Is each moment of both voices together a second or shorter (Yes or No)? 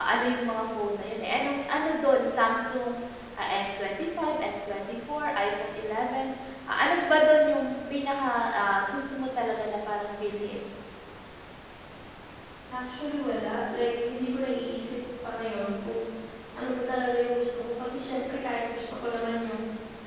Yes